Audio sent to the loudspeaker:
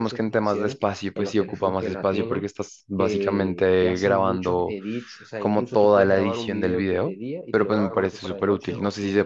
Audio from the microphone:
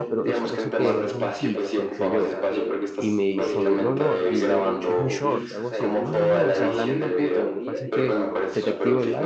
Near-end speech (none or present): present